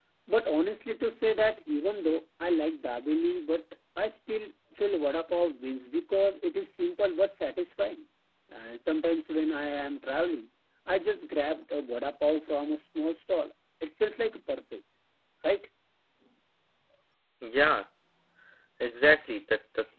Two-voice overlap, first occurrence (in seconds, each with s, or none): none